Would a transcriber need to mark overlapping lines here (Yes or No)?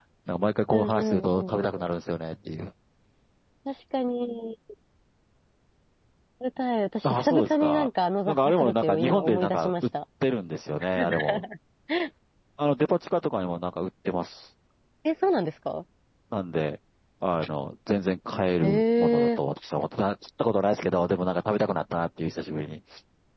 Yes